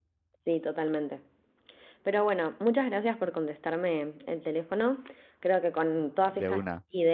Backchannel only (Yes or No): Yes